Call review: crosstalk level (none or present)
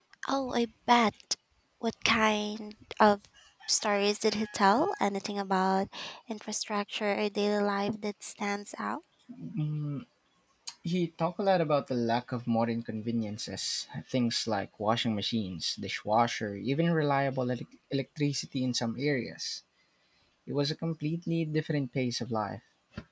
none